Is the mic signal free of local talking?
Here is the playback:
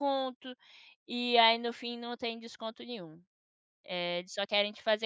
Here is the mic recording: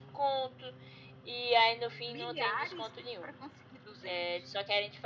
No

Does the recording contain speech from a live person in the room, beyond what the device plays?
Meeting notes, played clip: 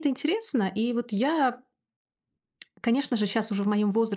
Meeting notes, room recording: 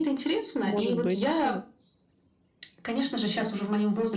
Yes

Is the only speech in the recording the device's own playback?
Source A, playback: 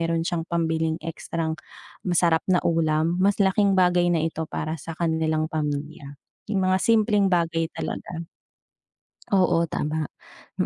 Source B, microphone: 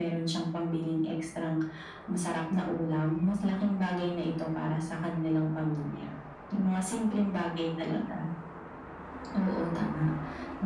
Yes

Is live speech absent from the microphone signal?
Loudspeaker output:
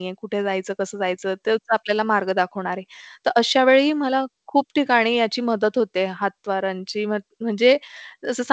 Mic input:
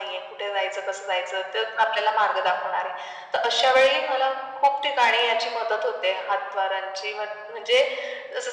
Yes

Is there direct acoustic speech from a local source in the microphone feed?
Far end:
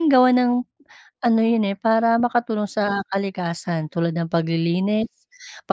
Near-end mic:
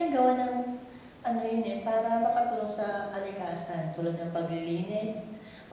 No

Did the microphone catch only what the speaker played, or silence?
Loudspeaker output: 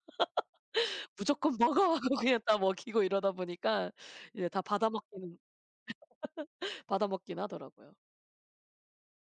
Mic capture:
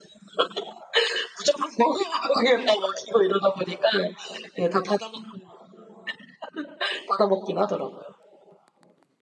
Yes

